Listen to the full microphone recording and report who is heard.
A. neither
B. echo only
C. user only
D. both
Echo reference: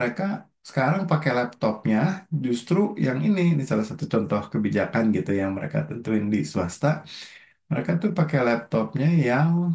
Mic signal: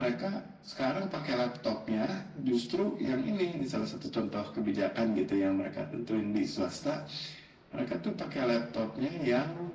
B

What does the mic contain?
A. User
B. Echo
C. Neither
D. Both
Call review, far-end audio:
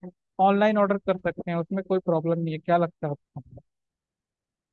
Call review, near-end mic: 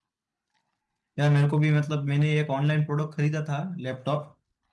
A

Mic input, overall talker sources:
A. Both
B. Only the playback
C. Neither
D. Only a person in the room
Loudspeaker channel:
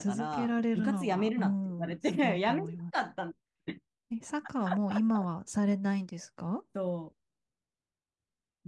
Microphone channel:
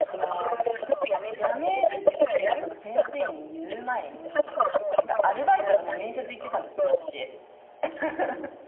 A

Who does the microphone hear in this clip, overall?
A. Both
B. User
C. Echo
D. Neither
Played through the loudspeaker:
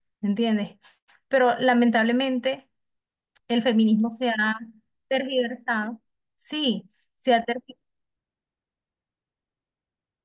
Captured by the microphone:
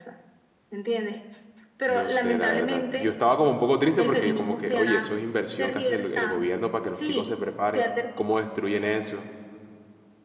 A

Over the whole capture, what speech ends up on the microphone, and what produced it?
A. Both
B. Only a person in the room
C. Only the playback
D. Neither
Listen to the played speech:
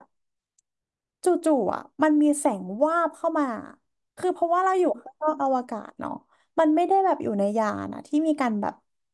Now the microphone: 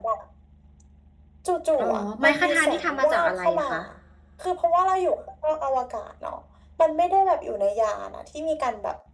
A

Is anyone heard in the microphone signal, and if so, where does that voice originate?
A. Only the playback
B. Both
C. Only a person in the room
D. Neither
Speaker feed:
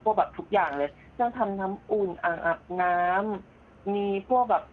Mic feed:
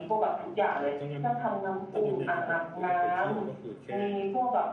B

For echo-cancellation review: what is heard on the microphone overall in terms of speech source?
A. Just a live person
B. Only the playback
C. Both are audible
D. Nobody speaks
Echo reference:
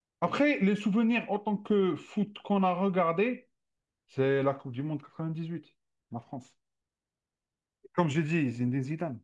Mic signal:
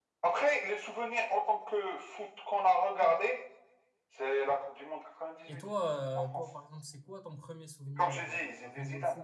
C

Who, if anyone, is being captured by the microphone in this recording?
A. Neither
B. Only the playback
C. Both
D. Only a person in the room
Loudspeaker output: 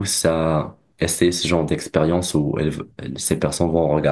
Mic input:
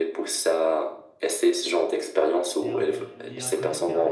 C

